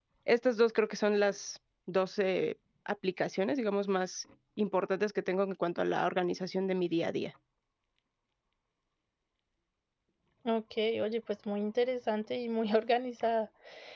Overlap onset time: none

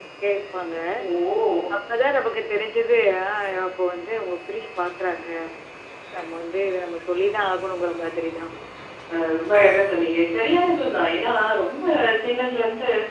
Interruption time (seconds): none

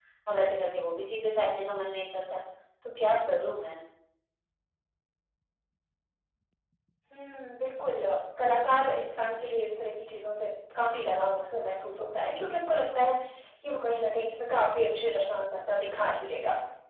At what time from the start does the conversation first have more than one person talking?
none

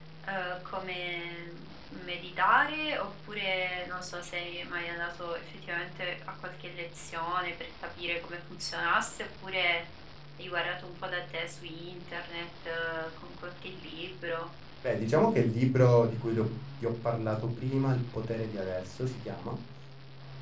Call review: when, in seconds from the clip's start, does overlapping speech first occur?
none

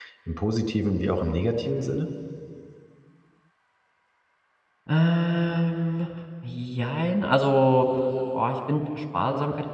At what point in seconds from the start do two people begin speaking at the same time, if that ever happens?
none

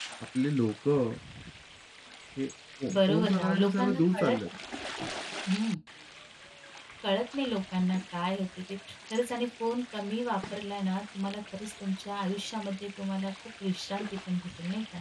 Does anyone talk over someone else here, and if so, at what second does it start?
2.9 s

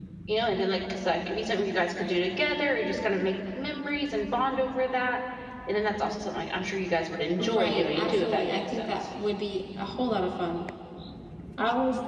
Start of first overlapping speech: 7.4 s

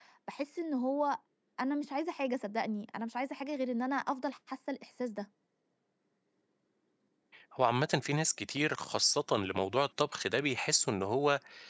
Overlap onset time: none

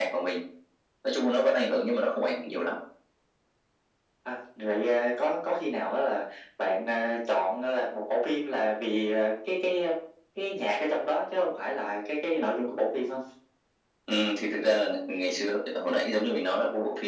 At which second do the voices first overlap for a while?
none

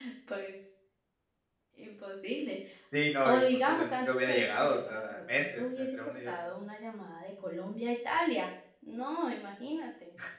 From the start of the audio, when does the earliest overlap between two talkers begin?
3.2 s

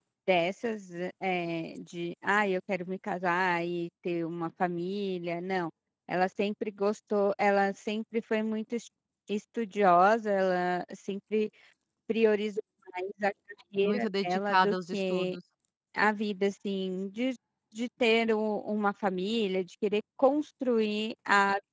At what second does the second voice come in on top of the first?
13.8 s

